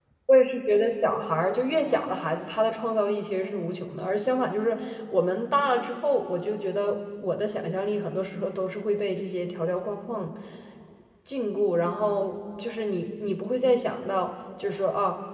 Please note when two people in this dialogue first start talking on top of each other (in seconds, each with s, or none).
none